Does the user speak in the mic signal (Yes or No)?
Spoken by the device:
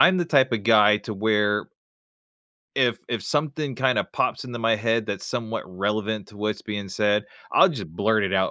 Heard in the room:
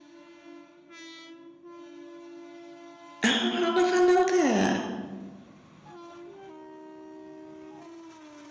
Yes